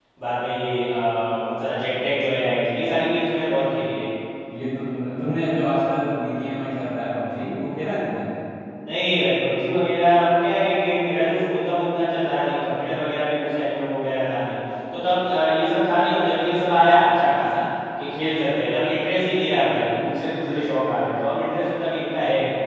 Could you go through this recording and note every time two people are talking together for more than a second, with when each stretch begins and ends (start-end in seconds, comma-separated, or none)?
none